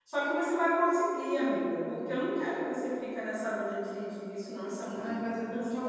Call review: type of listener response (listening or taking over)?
taking over